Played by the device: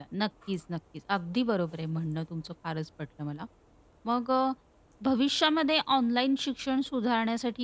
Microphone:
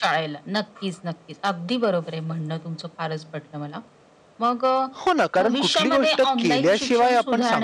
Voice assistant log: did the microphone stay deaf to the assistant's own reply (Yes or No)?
No